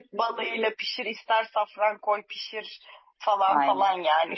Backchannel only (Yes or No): Yes